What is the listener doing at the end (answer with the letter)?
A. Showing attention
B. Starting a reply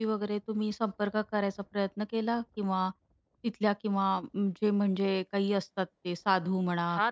B